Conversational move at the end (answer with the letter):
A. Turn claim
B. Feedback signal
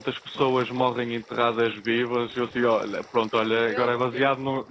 B